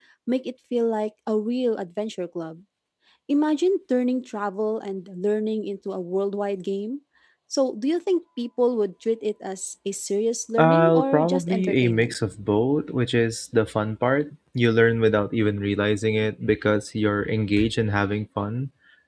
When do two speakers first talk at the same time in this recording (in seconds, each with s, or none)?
10.6 s